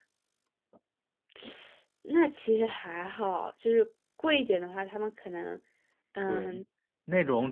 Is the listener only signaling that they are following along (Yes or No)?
No